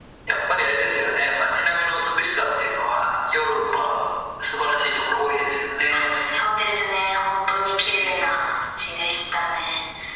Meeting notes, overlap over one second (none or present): none